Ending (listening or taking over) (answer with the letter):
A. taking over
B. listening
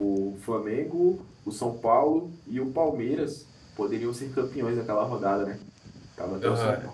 A